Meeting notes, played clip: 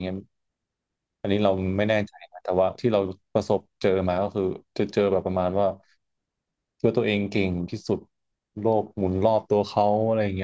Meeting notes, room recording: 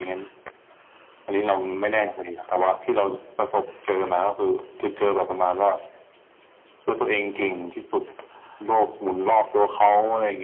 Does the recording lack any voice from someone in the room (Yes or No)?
No